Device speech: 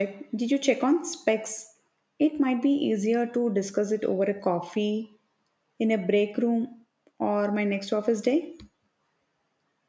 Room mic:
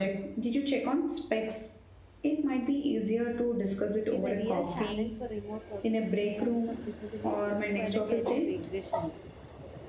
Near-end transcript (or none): which is a real challenge for remote workers in terms of visibility for the career regression.